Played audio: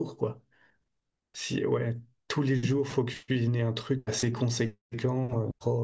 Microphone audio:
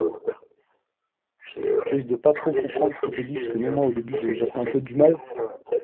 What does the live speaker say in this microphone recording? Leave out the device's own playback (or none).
tu risques de pas trop comprendre ce qu'il te dit, parce que même moi, au début, je- j'avais un peu du mal,